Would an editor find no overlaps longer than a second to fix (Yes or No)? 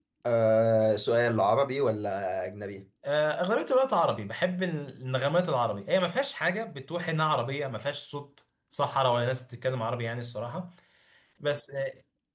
Yes